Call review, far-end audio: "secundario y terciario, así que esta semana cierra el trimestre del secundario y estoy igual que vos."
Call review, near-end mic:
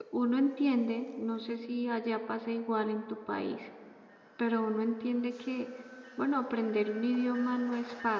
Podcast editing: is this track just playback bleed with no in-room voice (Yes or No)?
No